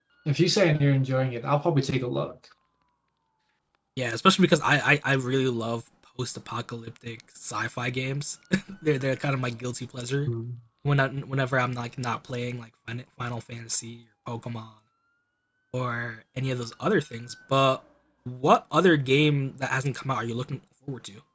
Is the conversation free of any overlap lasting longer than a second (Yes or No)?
Yes